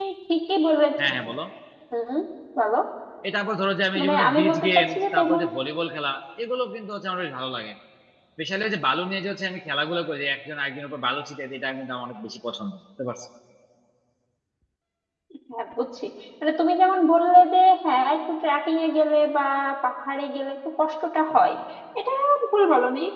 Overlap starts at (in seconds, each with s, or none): 4.0 s